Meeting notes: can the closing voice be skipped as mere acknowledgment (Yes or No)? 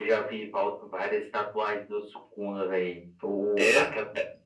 Yes